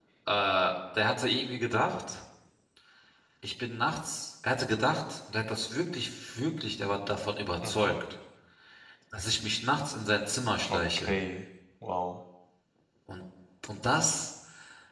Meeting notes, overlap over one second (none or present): none